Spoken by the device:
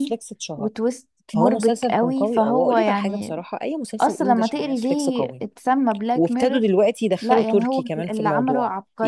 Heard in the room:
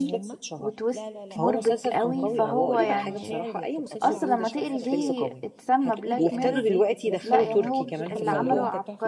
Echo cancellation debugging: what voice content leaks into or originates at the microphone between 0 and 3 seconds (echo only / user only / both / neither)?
both